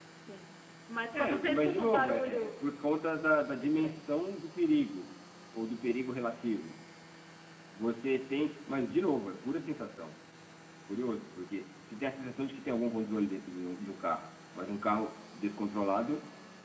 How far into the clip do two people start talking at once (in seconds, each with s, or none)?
1.1 s